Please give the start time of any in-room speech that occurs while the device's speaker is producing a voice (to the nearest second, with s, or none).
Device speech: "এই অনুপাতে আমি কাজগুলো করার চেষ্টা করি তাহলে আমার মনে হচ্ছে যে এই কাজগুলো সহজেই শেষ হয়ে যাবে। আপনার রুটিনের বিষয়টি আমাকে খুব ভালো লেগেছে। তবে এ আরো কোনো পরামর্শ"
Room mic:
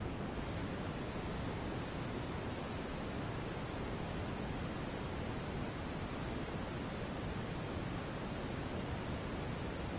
none